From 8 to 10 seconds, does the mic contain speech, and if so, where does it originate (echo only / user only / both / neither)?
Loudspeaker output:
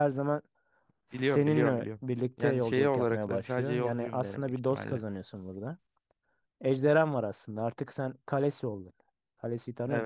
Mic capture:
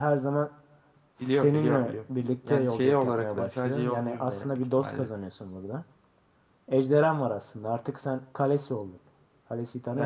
echo only